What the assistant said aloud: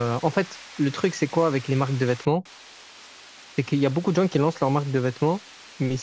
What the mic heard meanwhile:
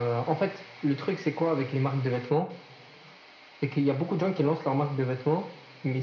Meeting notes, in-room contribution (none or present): none